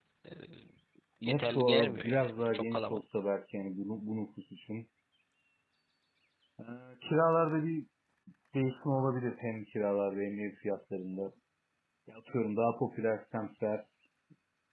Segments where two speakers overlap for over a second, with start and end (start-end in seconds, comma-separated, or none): 1.2-3.0